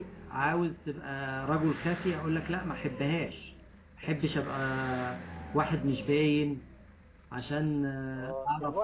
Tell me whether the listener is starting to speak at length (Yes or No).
Yes